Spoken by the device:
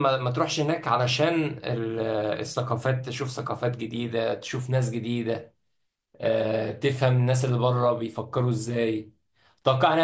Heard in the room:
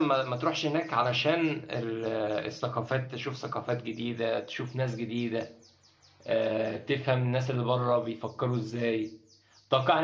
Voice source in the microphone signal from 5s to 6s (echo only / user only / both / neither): echo only